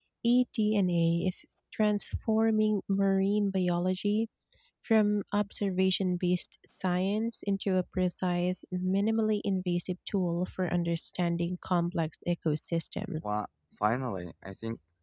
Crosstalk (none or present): none